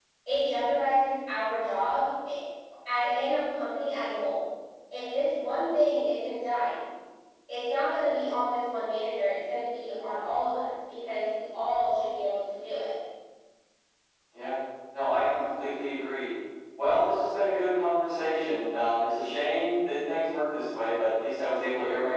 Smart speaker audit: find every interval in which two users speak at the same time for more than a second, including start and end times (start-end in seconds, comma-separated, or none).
none